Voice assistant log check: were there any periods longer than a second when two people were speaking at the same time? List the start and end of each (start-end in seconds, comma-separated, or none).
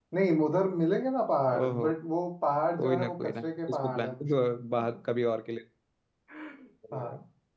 2.8-4.1